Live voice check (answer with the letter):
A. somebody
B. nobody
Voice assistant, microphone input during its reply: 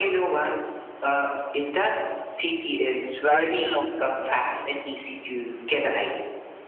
A